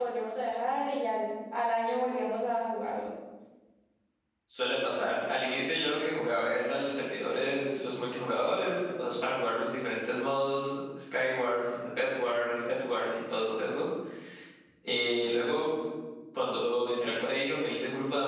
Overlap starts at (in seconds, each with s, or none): none